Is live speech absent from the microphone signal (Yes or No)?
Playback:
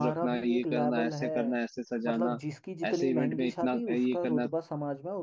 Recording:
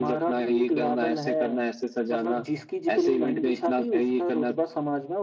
Yes